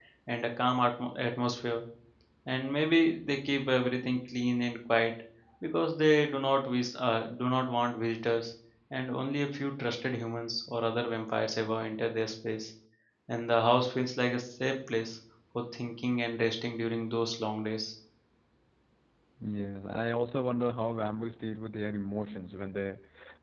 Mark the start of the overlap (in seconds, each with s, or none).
none